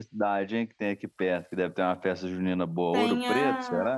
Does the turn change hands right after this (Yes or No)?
Yes